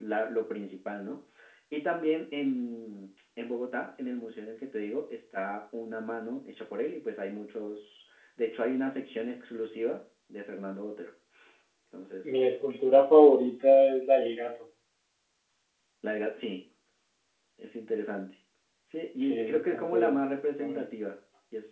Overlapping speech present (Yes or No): Yes